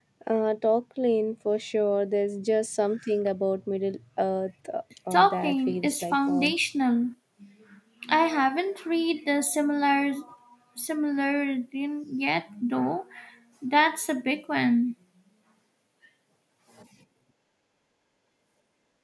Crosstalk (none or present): present